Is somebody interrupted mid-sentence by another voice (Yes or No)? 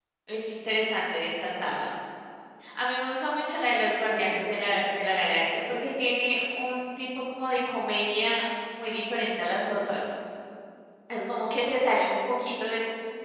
No